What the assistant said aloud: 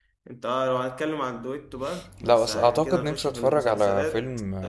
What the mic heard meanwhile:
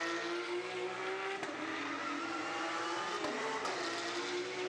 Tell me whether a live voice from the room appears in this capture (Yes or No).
No